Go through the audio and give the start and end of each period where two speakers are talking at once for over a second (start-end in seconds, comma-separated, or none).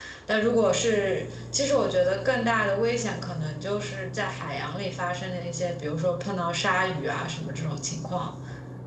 none